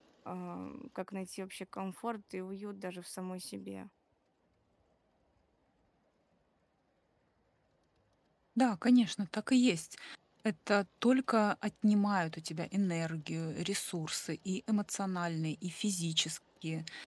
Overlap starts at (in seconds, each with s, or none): none